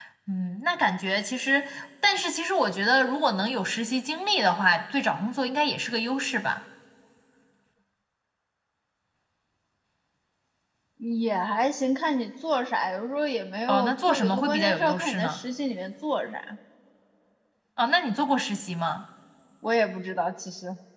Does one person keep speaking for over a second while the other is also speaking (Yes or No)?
Yes